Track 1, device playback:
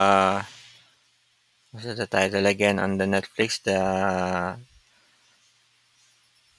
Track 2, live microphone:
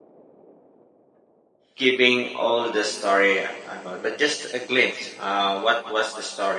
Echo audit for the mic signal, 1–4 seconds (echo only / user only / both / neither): user only